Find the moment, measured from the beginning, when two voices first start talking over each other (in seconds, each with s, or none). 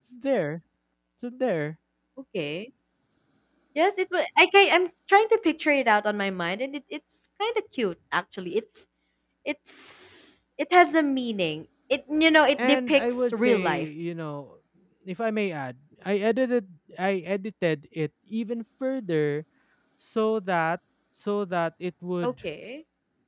12.6 s